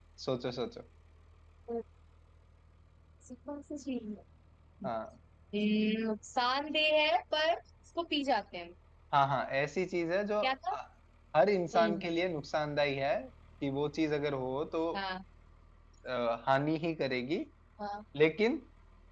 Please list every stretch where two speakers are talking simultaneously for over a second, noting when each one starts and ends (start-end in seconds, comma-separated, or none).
none